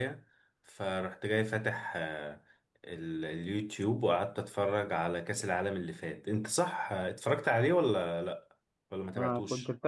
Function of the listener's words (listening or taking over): taking over